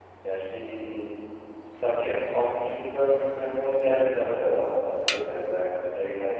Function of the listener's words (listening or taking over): listening